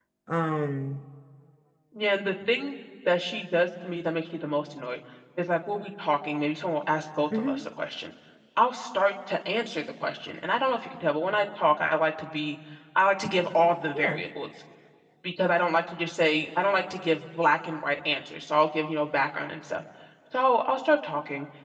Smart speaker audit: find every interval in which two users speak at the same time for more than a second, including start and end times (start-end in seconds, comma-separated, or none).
none